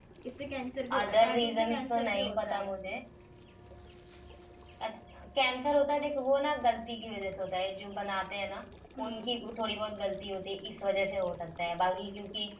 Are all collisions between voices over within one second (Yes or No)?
No